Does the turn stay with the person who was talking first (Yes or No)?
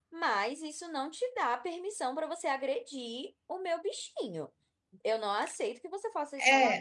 No